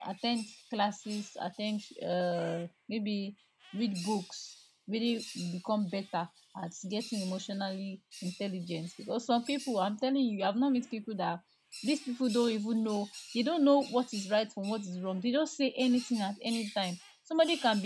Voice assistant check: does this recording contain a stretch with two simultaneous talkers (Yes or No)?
No